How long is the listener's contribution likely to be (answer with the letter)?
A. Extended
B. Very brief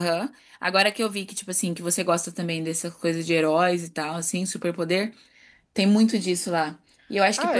B